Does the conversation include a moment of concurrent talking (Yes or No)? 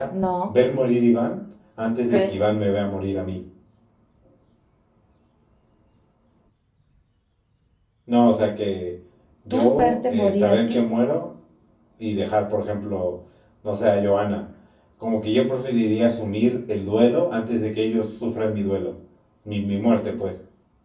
Yes